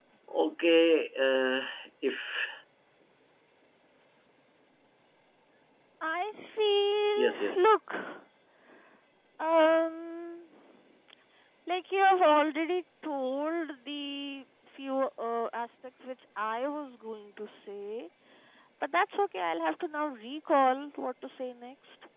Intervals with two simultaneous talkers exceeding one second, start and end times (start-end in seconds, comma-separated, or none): none